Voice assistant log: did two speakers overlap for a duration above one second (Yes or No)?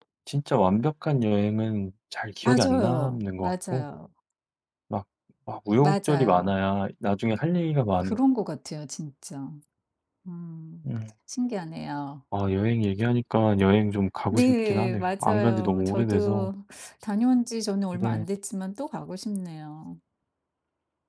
Yes